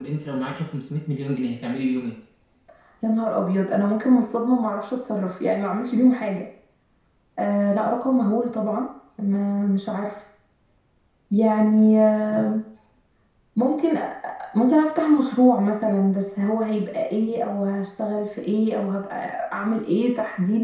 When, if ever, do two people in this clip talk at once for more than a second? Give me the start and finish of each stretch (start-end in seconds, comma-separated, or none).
none